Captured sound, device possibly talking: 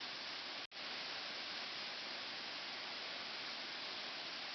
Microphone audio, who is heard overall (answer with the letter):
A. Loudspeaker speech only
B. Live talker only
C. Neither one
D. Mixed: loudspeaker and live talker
C